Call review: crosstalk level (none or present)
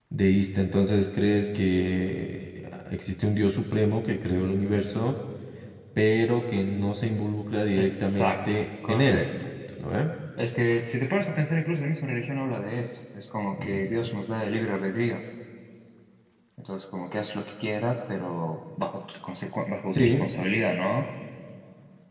present